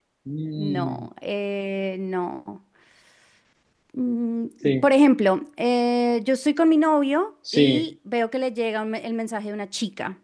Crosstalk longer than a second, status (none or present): none